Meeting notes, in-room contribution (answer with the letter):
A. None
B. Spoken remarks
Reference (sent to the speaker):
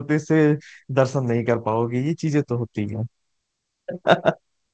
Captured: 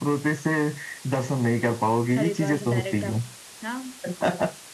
B